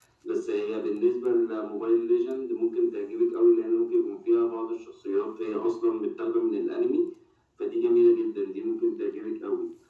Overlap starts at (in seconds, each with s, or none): none